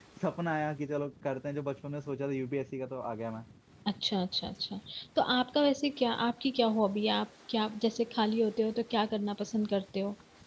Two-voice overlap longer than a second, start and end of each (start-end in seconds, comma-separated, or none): none